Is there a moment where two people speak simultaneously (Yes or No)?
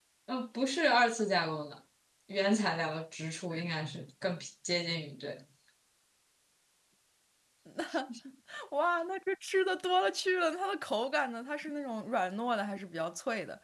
No